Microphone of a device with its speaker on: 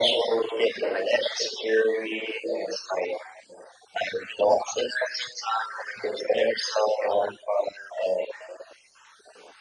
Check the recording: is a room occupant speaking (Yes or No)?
No